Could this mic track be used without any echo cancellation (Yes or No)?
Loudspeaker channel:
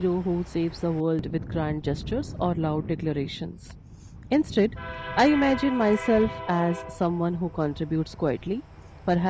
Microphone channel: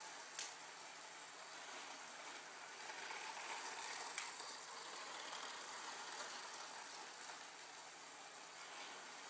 Yes